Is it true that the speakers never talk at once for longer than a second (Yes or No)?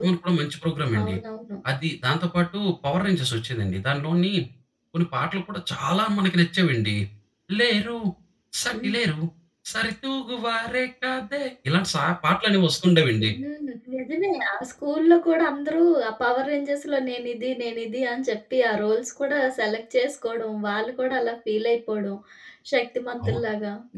Yes